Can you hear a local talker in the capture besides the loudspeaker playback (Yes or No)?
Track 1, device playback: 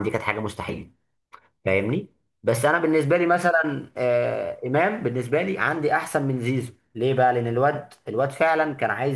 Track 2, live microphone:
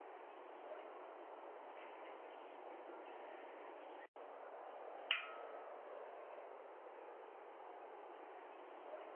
No